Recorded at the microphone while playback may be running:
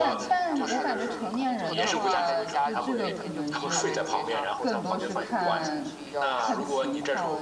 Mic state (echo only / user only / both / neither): both